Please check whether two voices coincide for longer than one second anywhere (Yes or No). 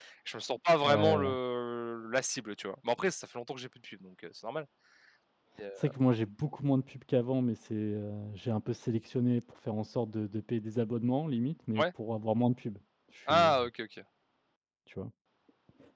No